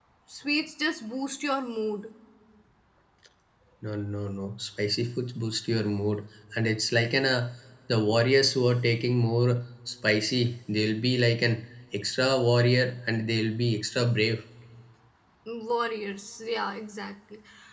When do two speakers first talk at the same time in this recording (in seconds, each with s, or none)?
none